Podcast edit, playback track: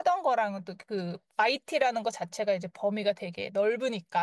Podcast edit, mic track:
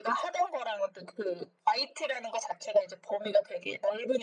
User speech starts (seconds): none

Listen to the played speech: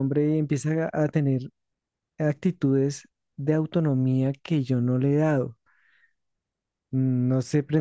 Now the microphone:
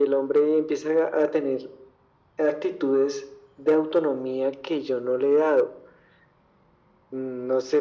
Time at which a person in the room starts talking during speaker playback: none

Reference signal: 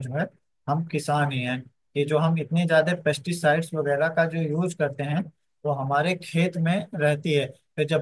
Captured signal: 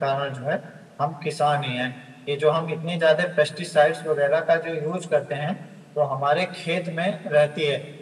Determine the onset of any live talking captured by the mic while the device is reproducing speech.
none

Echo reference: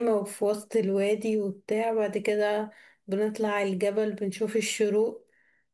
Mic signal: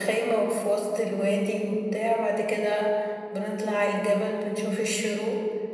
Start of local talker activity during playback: none

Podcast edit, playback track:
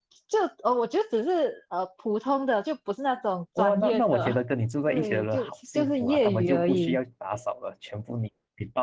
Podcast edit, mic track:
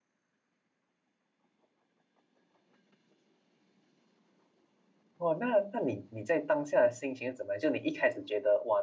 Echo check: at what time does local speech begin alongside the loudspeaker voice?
5.2 s

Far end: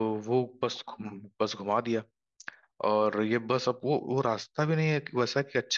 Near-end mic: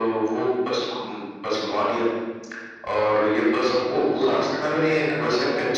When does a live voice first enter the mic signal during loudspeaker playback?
4.2 s

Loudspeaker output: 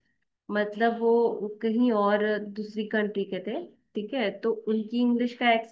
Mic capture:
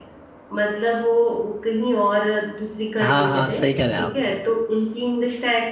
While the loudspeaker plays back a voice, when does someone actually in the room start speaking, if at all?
3.0 s

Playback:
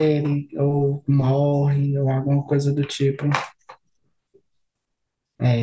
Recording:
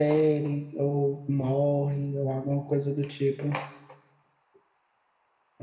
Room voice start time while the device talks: none

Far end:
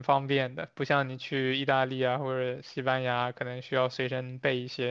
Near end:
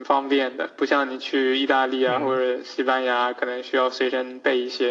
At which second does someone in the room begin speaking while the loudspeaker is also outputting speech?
2.1 s

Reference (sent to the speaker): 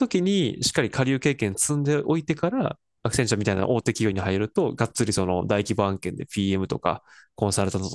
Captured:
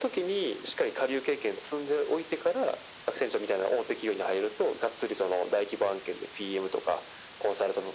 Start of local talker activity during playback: none

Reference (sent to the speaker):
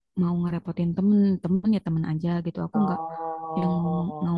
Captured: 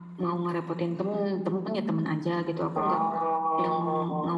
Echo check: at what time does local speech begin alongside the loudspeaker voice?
none

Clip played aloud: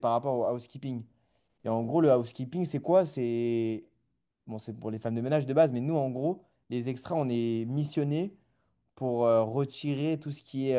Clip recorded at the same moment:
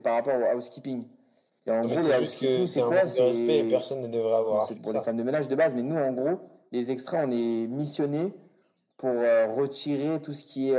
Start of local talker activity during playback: 1.8 s

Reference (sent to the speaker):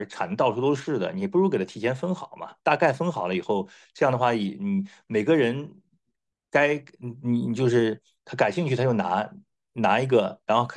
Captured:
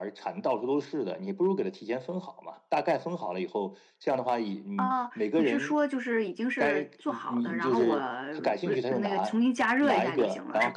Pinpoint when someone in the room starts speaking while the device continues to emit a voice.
4.8 s

